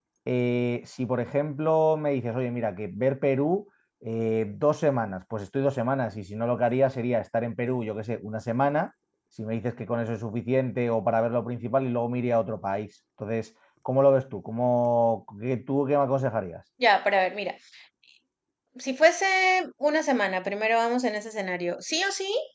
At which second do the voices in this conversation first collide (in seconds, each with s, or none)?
none